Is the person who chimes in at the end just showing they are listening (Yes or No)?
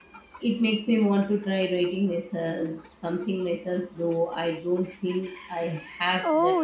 No